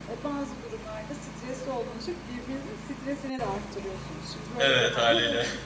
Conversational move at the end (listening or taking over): listening